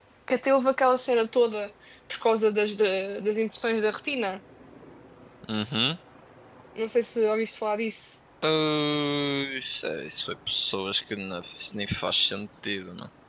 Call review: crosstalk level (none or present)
none